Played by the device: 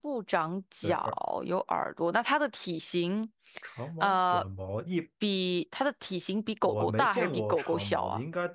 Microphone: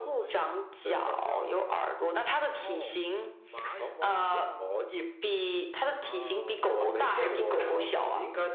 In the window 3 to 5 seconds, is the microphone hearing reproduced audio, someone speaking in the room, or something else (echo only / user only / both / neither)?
both